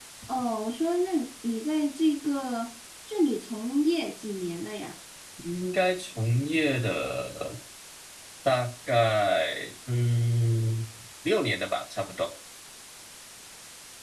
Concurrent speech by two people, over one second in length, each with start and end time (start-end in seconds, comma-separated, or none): none